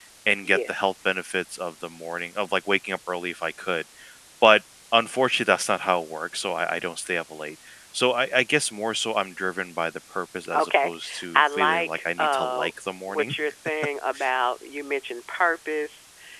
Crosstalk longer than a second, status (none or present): present